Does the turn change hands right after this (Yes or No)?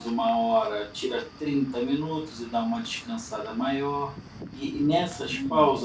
No